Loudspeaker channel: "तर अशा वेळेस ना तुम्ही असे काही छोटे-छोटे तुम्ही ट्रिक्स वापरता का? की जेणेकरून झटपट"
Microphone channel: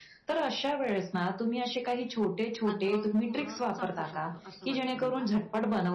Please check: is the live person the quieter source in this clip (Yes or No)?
Yes